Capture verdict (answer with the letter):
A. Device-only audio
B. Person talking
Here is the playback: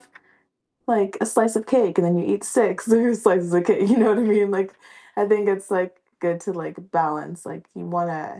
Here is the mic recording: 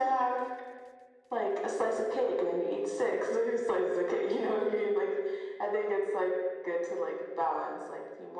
A